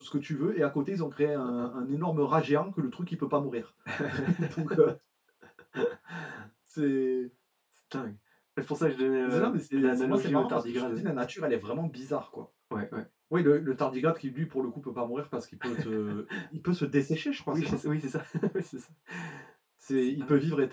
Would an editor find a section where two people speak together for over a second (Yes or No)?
Yes